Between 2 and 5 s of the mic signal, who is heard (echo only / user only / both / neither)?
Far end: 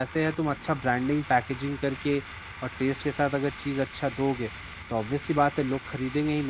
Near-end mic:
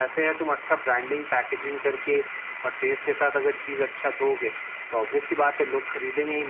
echo only